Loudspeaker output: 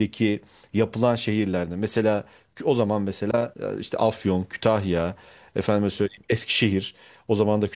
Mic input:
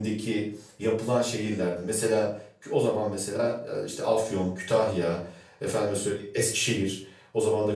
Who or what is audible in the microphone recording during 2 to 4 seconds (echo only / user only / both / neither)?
echo only